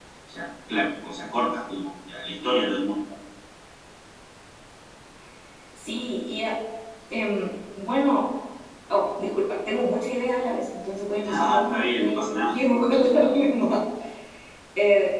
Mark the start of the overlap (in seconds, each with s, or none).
11.2 s